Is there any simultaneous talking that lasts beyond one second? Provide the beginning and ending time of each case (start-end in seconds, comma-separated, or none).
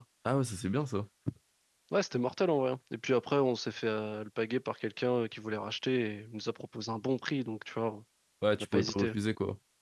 none